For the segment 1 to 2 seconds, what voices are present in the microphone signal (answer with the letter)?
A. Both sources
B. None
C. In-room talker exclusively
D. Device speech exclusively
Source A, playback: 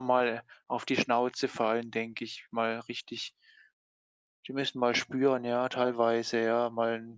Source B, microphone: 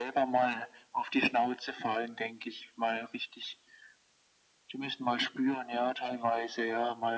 D